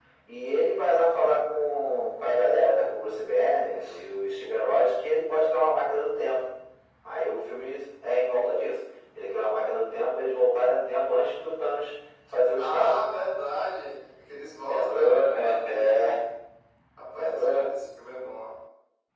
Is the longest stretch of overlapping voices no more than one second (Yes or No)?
No